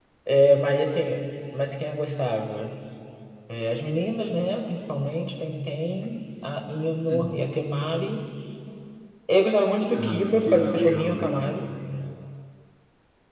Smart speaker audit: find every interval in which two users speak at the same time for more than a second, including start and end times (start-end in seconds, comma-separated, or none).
9.9-11.6